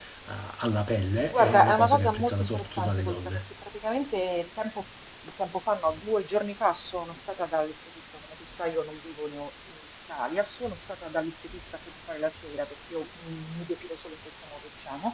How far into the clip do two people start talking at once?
1.3 s

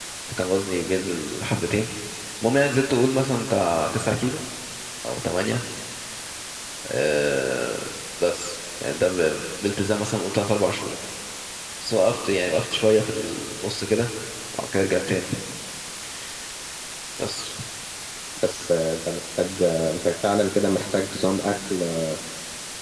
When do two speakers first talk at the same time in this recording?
none

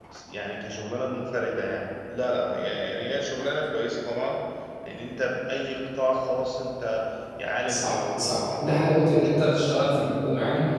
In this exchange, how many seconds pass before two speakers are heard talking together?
7.7 s

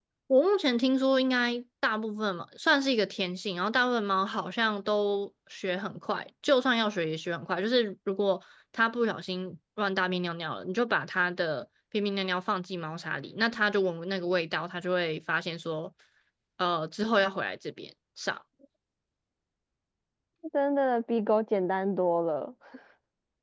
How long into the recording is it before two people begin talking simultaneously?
none

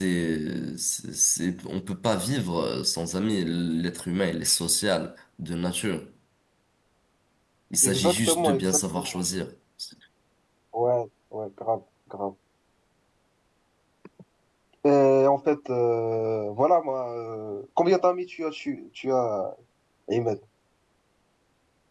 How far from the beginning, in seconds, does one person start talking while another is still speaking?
7.8 s

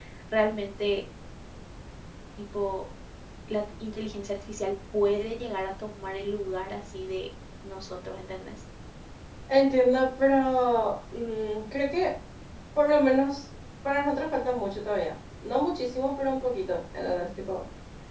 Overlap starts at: none

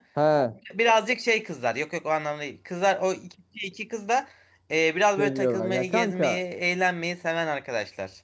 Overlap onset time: 5.2 s

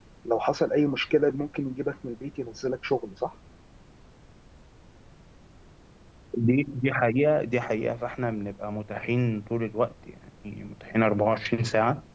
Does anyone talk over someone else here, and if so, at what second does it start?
none

